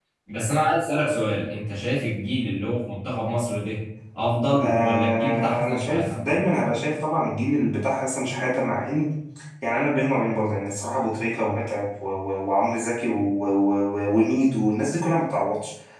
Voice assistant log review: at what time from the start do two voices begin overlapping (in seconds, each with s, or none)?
4.6 s